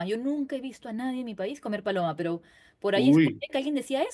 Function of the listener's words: listening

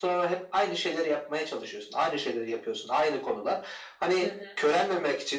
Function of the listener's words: listening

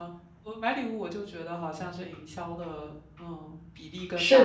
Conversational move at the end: taking over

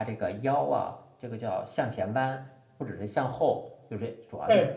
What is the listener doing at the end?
listening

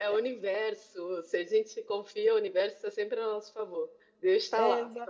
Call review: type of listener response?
listening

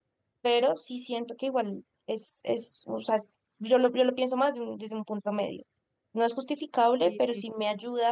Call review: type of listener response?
listening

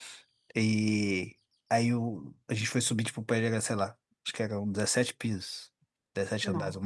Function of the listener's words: listening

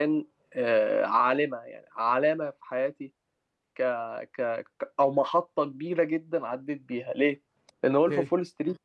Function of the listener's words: listening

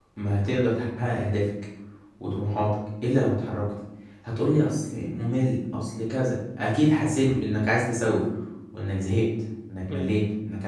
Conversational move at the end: taking over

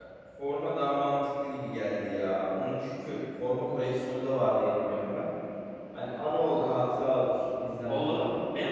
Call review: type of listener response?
taking over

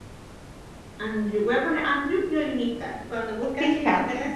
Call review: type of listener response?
listening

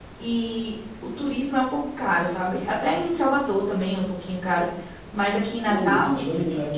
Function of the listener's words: taking over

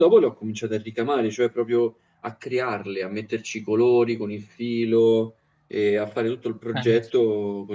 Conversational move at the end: listening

